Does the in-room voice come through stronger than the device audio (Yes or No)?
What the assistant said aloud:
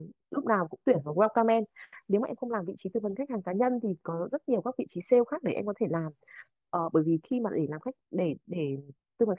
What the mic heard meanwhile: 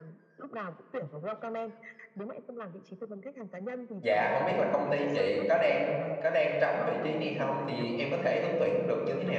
Yes